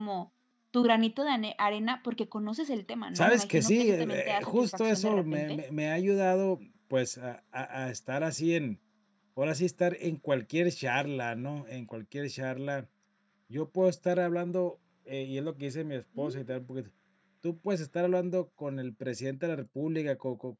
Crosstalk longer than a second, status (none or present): present